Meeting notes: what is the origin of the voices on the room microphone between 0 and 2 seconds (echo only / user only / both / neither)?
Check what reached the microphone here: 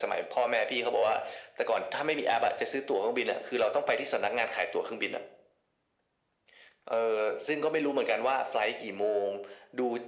echo only